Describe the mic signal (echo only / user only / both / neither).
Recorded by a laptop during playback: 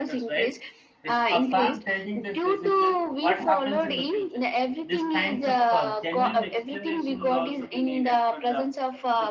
both